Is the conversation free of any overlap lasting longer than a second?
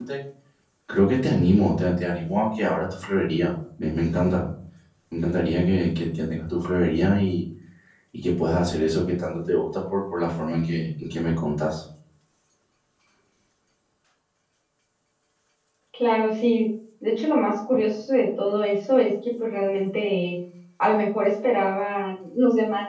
Yes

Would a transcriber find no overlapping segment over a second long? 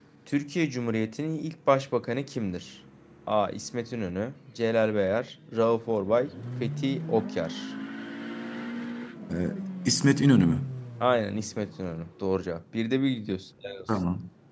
Yes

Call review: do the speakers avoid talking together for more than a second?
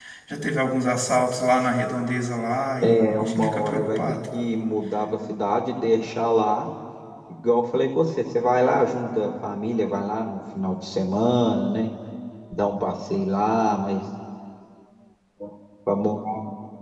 No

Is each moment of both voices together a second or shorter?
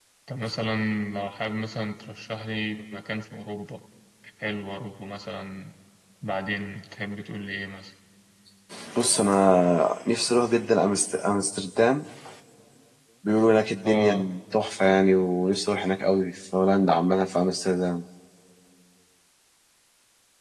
Yes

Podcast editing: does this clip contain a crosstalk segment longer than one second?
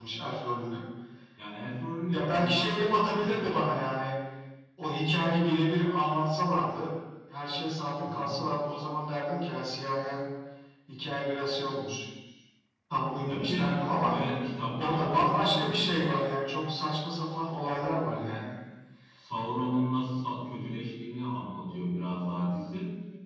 Yes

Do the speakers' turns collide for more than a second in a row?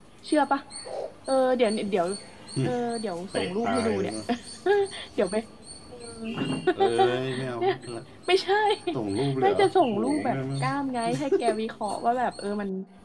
Yes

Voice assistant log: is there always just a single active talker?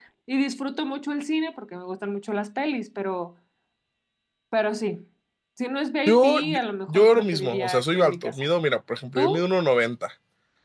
No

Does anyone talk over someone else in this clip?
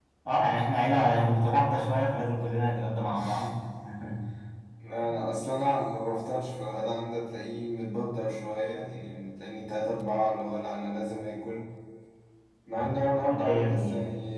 Yes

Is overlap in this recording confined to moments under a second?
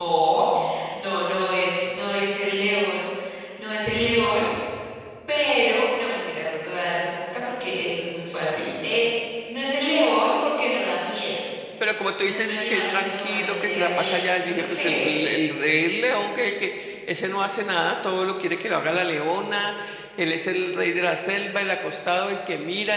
No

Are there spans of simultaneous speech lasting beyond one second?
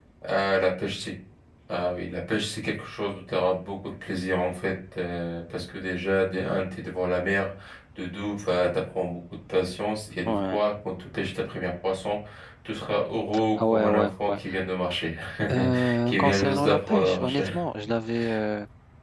Yes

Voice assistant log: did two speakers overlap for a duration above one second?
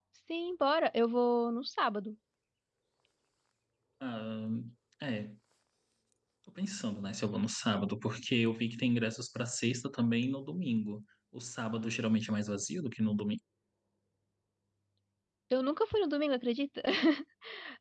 No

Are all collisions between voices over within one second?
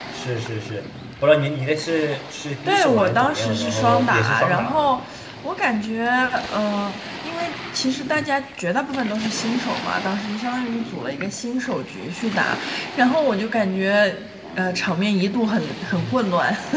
No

